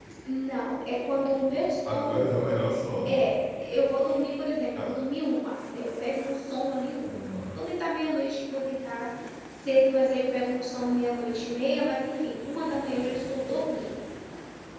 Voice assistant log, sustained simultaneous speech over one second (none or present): none